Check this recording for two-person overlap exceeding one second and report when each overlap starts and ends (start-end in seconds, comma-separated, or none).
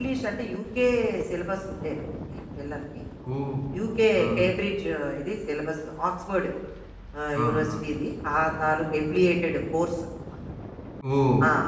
none